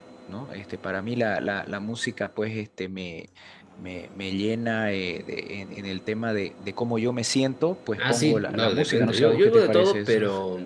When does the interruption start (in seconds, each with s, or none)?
8.0 s